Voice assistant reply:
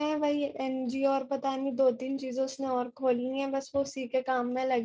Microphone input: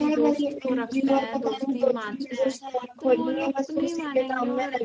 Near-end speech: present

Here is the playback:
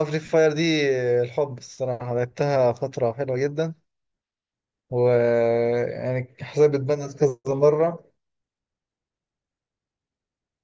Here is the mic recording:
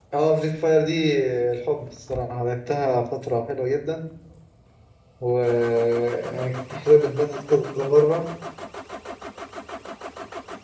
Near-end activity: none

